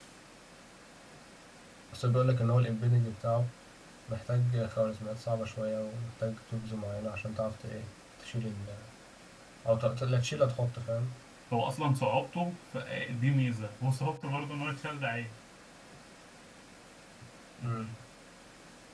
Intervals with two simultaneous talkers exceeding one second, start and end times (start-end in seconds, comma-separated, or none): none